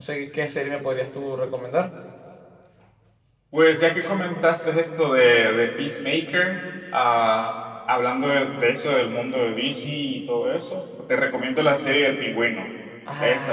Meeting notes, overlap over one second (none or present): none